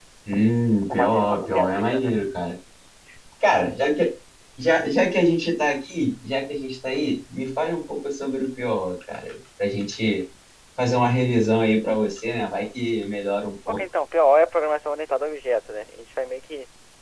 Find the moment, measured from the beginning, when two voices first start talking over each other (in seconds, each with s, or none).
0.9 s